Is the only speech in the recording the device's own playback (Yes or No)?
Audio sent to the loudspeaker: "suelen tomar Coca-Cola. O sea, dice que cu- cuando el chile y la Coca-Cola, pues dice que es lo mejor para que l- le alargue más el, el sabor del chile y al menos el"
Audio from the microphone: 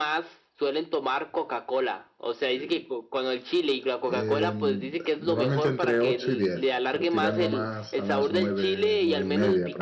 No